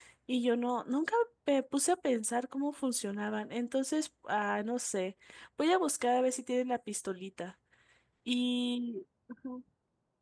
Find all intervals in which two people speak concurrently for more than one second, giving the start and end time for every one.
none

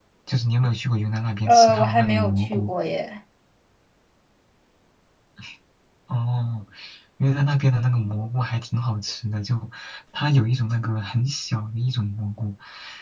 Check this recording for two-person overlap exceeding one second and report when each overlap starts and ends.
1.4-2.7

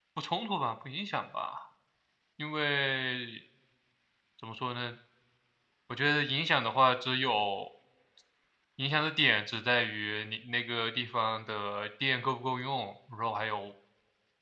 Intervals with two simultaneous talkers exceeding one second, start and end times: none

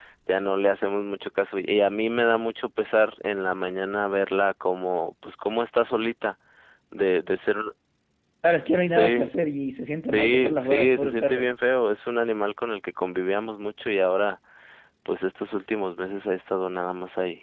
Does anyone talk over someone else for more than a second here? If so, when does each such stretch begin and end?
10.1-11.4

